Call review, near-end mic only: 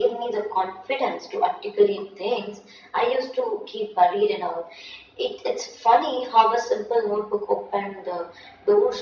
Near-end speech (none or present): none